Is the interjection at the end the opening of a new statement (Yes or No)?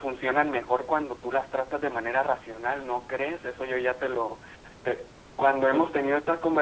No